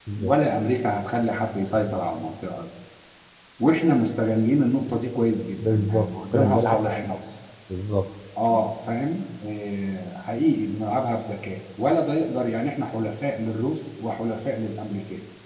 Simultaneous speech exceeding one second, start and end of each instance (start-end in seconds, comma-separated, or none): 5.6-7.2